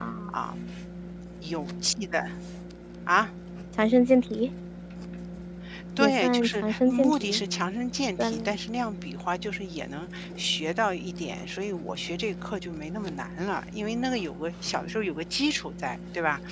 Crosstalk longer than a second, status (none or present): present